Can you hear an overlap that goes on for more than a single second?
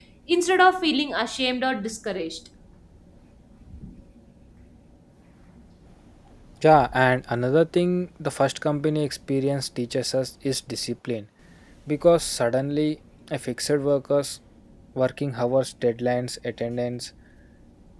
No

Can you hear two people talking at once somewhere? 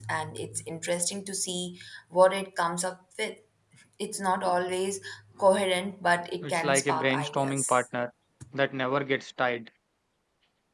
Yes, from 6.4 s

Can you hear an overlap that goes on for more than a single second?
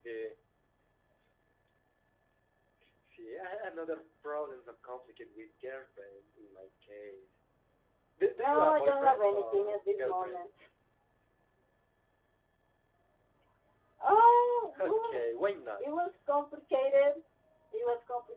Yes, from 8.4 s

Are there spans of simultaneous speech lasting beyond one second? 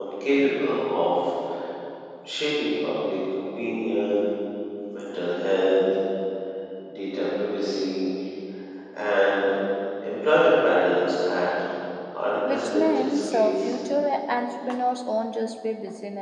Yes, from 12.5 s

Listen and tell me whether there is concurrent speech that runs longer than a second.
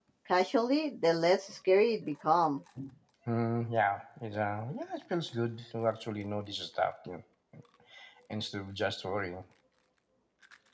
No

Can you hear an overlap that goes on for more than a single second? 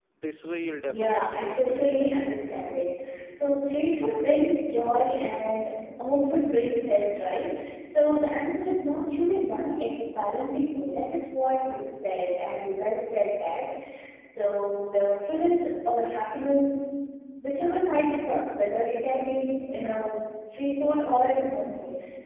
Yes, from 0.8 s

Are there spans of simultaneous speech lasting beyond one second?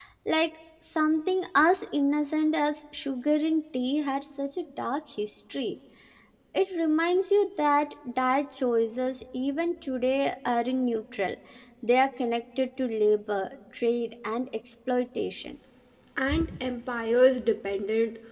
No

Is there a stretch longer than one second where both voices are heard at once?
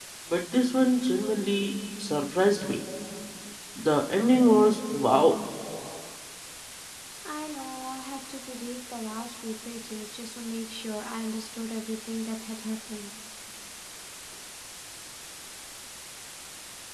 No

